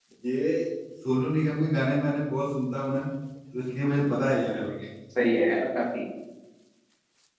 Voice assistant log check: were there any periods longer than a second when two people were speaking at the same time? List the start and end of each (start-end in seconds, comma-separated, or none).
none